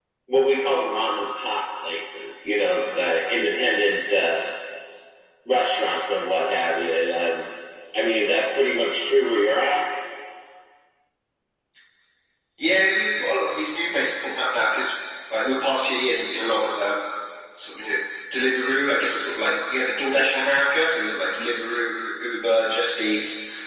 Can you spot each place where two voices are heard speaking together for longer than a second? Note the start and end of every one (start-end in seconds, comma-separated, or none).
none